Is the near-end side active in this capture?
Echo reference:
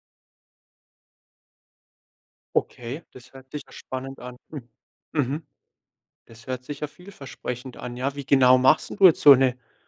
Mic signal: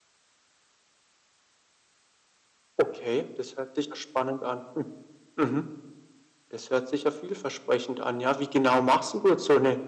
No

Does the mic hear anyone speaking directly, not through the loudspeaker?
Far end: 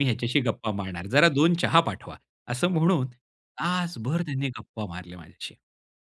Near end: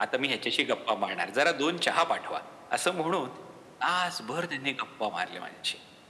No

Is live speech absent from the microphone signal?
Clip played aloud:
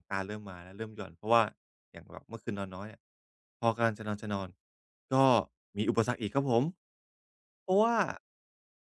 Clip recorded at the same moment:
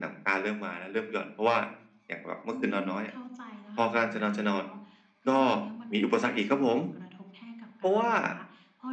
No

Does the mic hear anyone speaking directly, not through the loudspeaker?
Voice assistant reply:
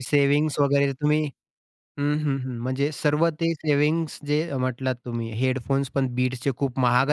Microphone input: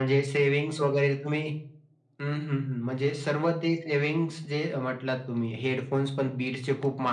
No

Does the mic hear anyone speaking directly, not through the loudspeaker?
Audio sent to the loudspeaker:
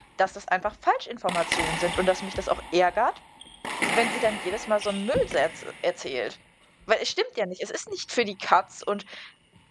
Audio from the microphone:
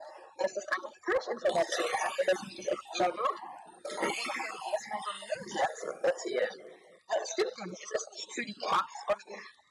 No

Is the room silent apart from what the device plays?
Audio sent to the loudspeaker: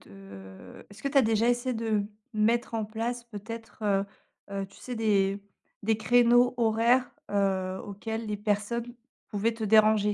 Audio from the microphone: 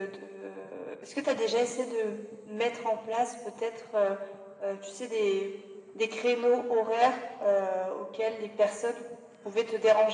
Yes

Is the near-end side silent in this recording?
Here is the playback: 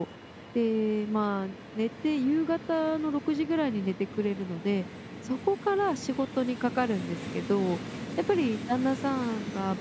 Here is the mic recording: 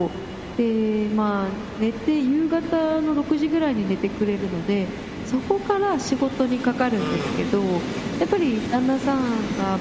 No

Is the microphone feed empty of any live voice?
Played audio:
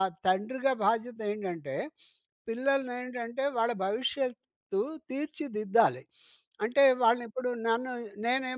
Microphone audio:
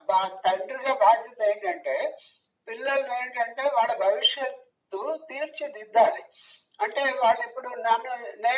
Yes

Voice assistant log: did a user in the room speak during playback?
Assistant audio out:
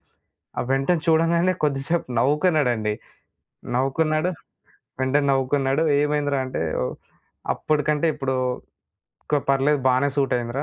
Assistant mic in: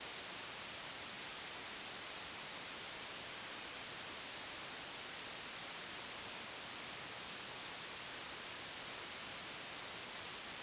No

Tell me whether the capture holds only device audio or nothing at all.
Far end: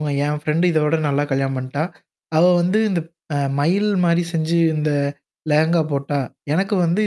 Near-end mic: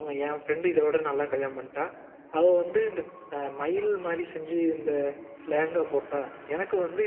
Yes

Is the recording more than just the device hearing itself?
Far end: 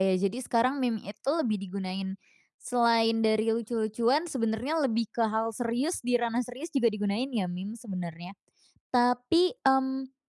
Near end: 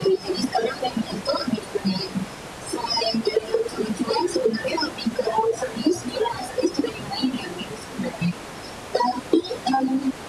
No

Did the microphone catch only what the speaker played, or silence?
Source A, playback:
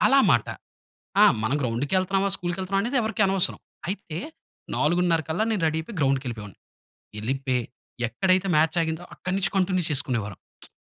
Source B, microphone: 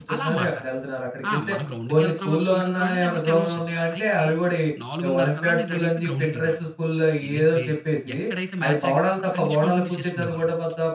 No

